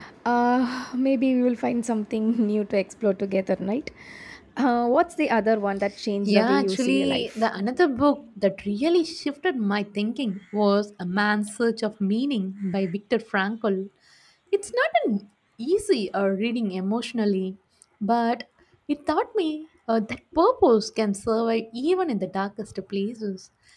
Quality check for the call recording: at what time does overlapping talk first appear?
6.2 s

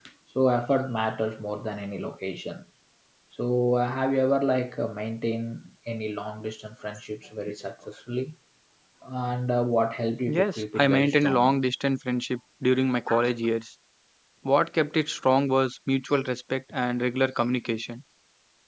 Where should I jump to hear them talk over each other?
10.3 s

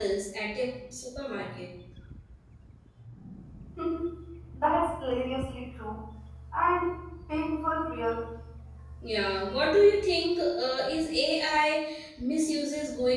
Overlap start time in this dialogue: none

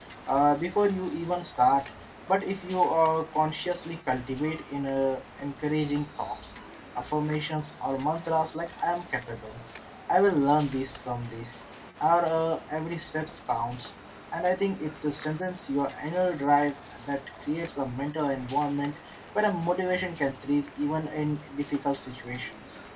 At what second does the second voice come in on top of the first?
none

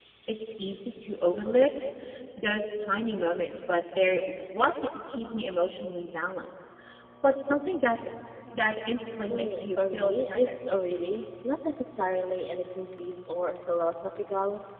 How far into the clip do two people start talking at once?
9.3 s

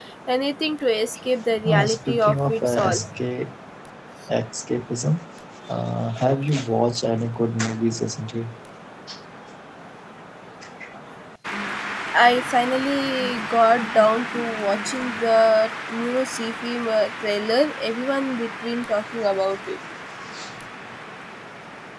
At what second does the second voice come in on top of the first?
1.6 s

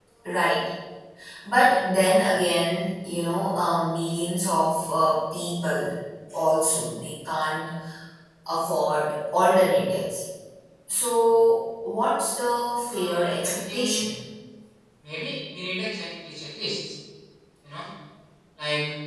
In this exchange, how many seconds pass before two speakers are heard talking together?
12.9 s

